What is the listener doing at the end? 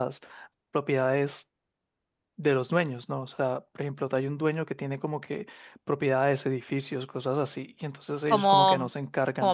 taking over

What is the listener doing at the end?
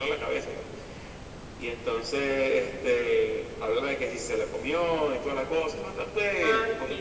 taking over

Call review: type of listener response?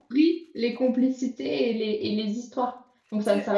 taking over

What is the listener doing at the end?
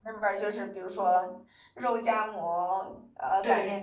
listening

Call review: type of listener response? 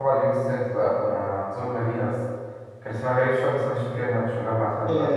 taking over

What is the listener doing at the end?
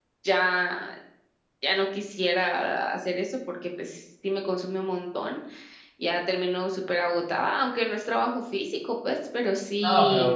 taking over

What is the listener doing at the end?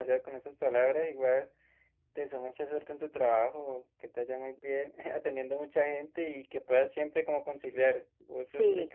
listening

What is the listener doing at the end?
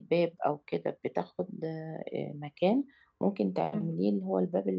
listening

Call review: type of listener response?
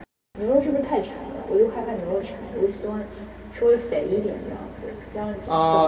taking over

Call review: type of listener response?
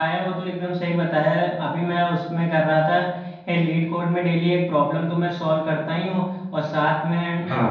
listening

